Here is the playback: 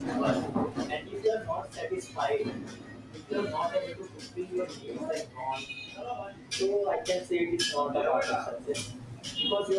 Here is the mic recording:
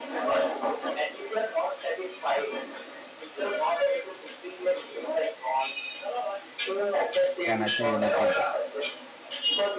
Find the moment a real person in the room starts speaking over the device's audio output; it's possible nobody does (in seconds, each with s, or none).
7.4 s